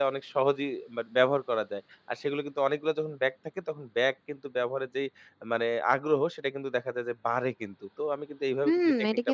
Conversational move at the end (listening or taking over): taking over